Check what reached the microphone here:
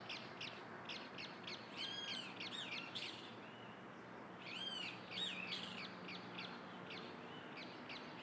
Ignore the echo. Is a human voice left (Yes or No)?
No